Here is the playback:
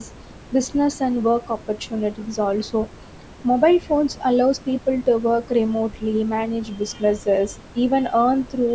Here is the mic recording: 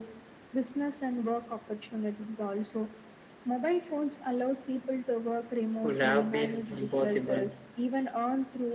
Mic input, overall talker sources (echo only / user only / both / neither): both